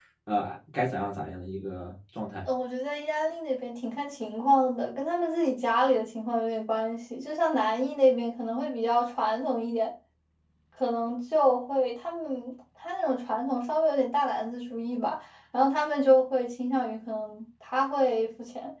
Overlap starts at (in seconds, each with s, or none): none